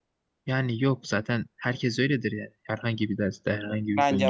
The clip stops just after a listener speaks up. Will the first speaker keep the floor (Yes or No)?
No